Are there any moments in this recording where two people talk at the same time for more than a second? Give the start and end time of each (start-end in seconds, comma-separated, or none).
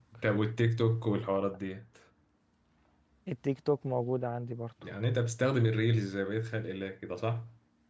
none